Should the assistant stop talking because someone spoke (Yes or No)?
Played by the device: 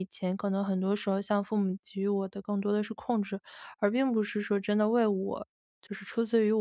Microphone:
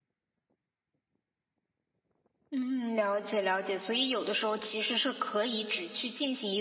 Yes